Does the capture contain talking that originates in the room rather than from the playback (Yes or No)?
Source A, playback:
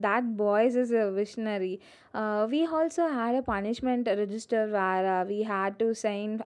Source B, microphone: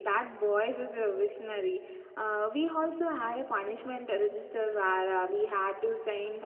No